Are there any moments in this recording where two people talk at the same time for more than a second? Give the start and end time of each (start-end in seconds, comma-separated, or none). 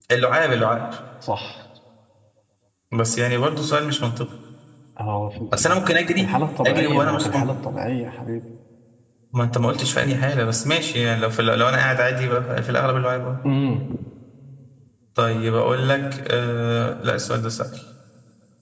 5.6-7.5